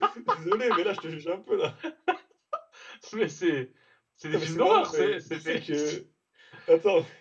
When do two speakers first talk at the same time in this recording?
4.3 s

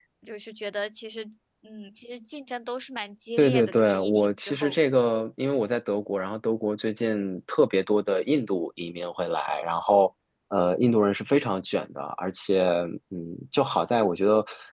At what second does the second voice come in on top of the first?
3.4 s

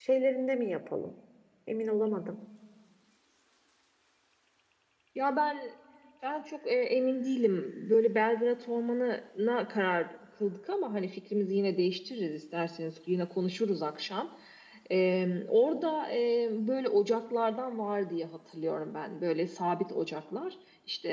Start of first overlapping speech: none

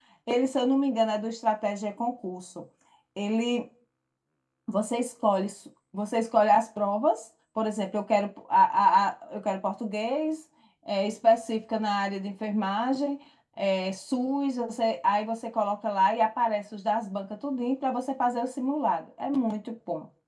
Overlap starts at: none

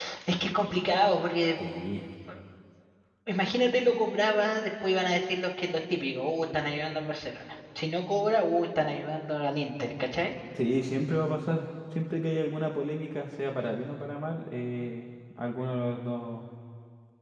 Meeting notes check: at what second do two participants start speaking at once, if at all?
none

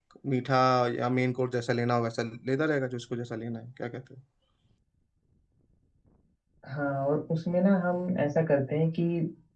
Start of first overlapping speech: none

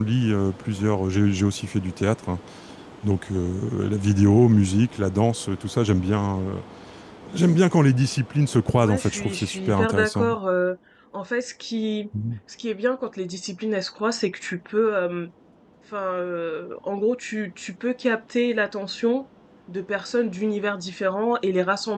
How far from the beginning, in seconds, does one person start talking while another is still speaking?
8.8 s

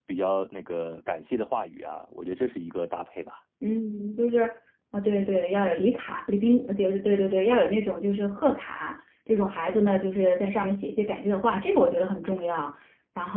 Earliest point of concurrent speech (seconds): none

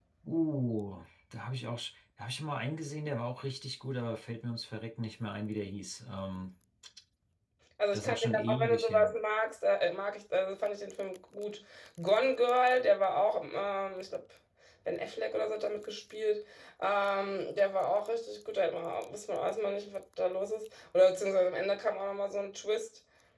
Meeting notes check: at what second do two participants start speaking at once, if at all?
7.9 s

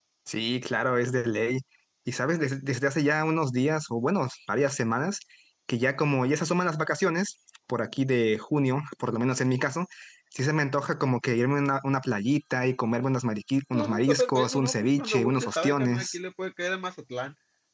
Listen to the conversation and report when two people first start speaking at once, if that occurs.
13.7 s

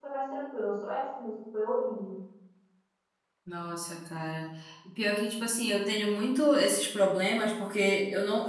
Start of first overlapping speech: none

